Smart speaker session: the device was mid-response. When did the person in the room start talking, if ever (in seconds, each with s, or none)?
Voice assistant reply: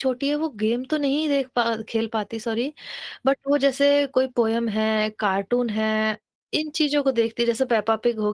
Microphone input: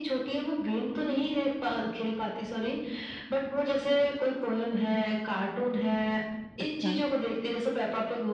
6.6 s